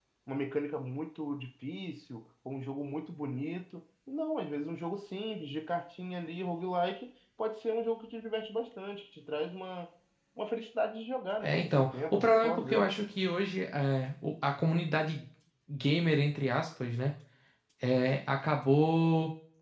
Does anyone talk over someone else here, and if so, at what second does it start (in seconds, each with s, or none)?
11.4 s